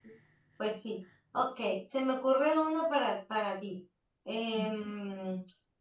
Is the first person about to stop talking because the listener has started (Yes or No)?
No